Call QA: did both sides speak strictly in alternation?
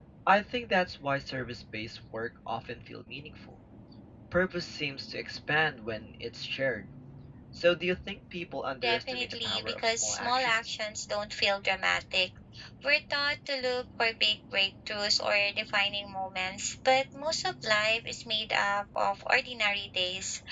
No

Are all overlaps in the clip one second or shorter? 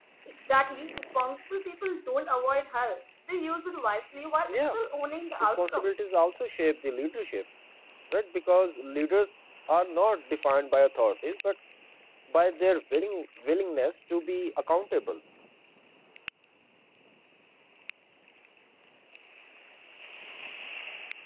Yes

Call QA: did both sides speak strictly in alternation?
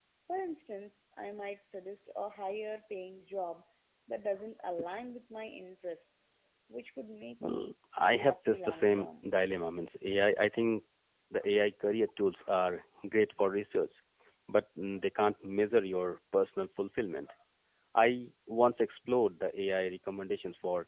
No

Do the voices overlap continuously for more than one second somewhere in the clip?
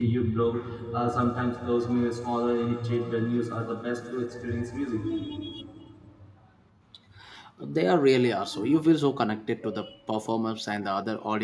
No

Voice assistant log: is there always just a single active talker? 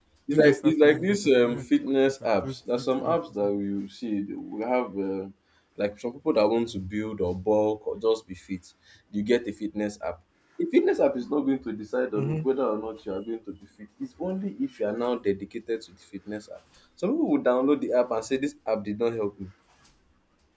No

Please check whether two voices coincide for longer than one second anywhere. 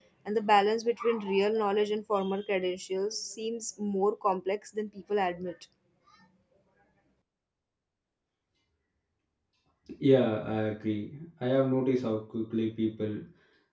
No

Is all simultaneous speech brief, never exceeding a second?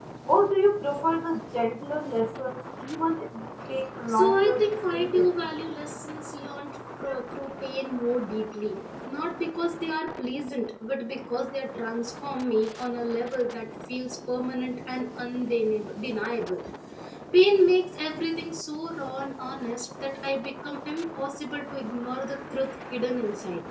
No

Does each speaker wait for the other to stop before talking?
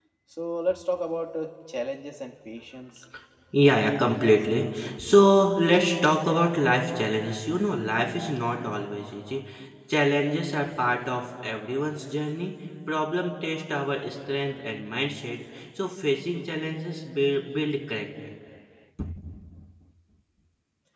No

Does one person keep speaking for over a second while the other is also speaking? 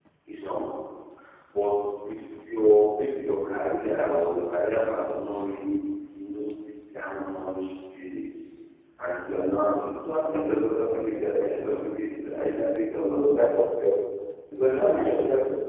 No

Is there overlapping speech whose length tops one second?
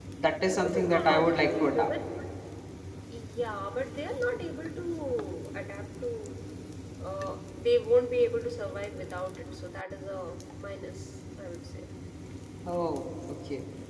Yes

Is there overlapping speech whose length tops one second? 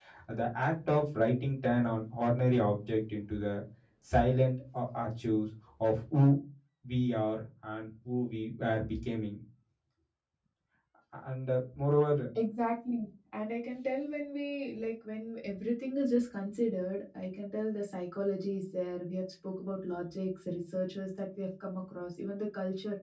No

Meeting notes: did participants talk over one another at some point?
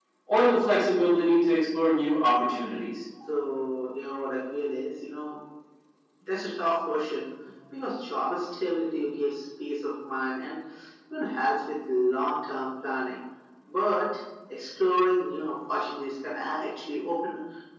No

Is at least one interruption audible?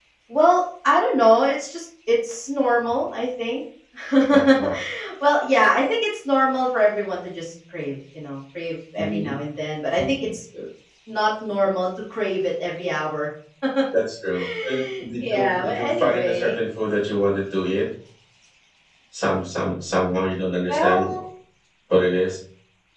Yes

